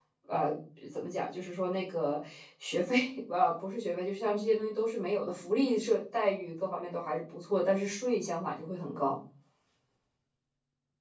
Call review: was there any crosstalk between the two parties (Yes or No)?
No